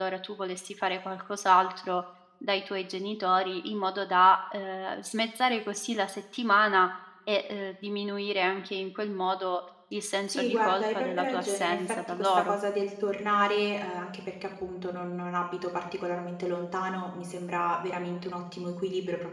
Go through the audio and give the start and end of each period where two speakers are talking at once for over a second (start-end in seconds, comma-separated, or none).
10.3-12.5